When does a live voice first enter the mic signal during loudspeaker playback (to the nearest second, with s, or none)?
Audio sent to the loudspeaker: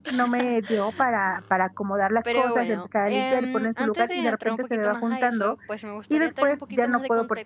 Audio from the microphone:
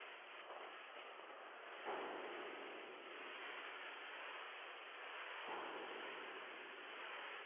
none